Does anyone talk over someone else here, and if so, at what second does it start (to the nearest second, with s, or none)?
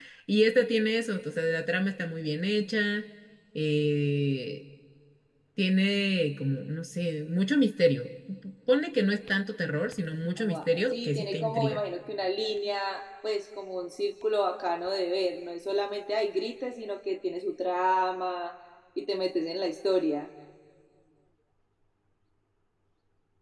10 s